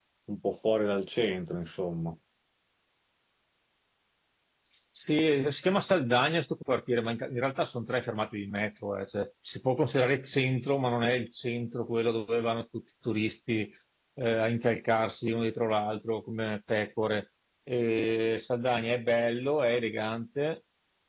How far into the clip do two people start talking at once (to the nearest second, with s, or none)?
none